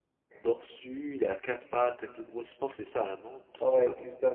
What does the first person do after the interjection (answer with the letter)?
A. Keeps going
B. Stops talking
B